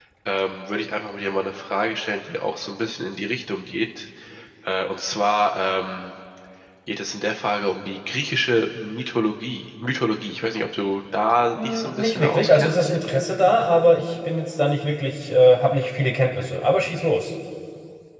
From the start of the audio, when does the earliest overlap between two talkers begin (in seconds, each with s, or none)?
11.6 s